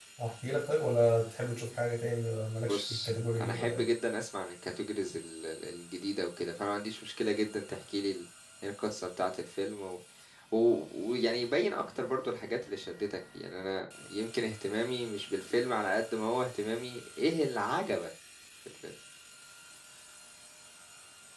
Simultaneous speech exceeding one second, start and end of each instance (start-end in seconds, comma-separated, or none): 2.6-3.9